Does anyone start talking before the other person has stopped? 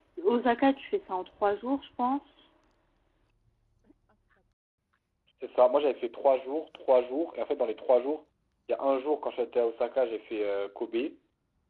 No

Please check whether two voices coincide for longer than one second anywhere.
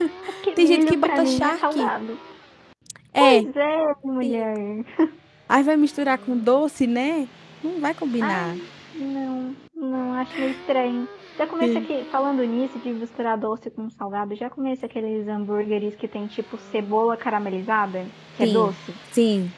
Yes, from 0.6 s

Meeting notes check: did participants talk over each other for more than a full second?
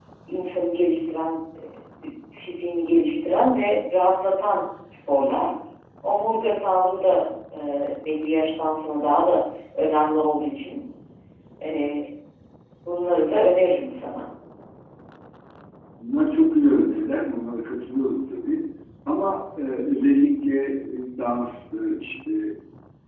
No

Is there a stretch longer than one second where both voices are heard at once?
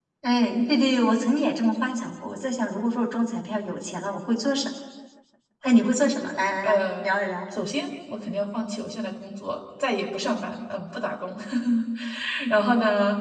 No

